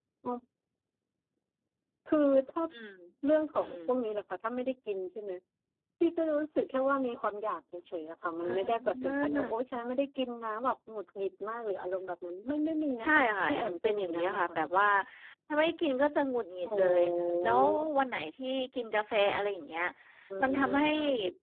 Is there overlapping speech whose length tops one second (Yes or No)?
Yes